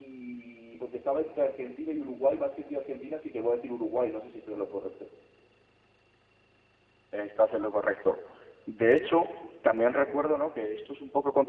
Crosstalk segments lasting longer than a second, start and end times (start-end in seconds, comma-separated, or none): none